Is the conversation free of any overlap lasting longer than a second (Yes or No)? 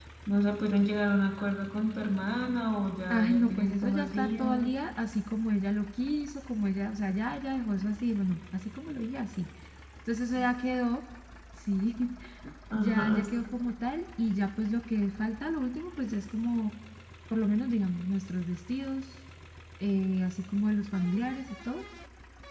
No